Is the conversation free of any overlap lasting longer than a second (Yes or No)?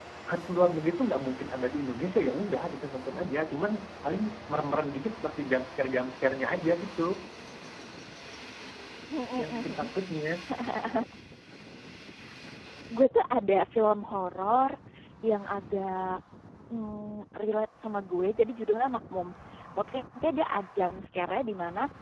Yes